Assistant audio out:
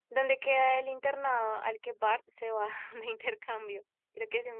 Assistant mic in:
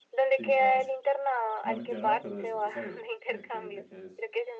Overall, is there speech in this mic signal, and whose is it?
both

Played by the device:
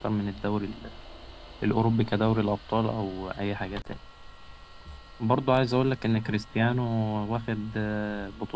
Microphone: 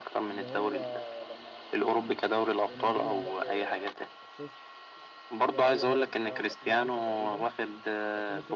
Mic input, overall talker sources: both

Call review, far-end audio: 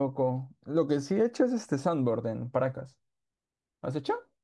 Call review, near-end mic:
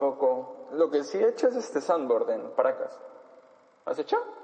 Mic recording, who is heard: echo only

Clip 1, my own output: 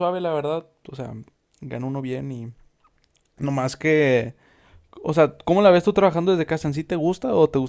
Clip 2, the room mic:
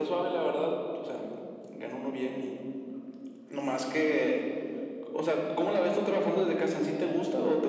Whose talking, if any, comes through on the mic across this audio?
echo only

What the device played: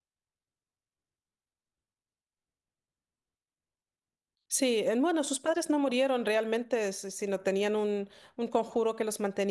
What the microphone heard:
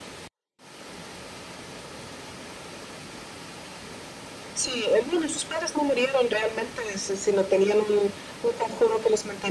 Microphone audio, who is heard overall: echo only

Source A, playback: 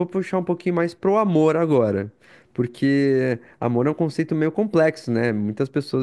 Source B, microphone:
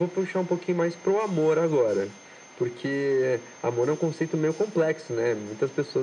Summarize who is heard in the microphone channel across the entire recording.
echo only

